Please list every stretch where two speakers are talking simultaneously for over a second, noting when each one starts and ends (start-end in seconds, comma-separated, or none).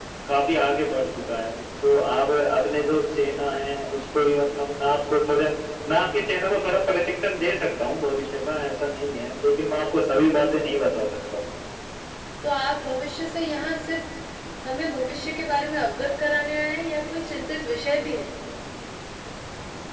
none